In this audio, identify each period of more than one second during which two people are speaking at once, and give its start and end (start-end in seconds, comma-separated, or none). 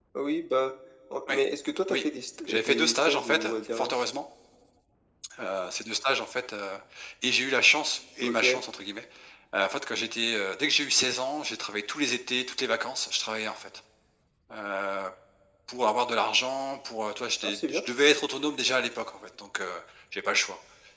2.5-4.0